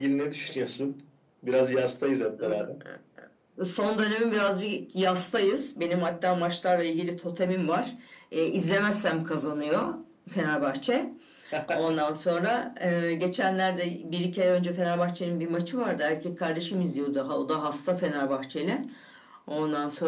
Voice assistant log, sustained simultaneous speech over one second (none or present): none